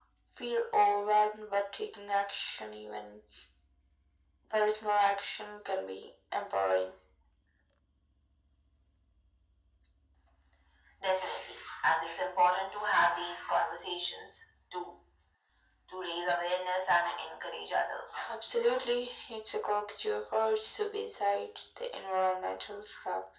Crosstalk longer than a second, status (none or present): none